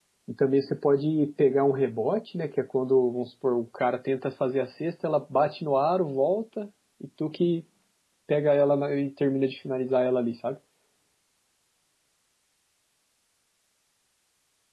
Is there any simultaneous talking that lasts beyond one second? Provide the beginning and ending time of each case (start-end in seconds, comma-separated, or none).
none